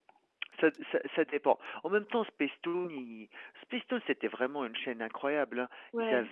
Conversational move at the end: listening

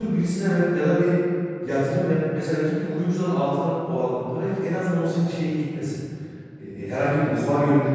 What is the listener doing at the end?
listening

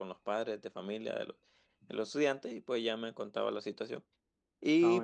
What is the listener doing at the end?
listening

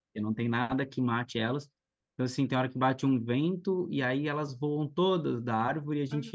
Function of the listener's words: listening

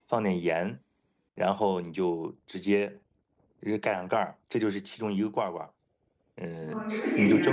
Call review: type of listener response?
taking over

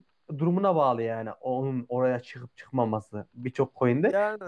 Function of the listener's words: listening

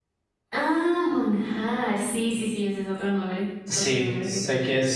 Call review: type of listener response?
taking over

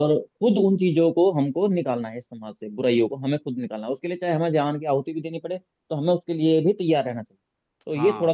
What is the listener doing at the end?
taking over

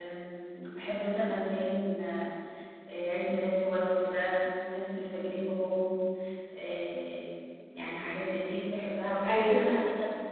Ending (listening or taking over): listening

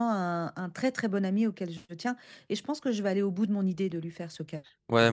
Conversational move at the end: taking over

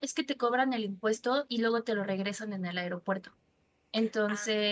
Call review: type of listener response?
listening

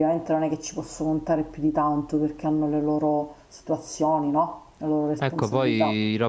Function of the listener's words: taking over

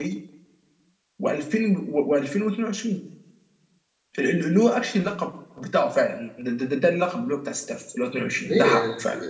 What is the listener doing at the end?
taking over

